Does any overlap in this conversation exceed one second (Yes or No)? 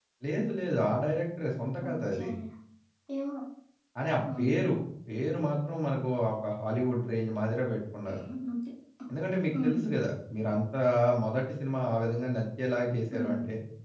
No